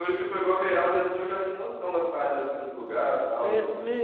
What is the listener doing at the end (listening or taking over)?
taking over